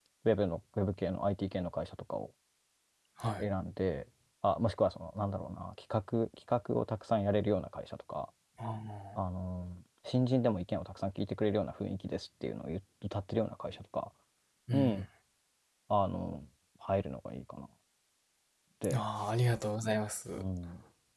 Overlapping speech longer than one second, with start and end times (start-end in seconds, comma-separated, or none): none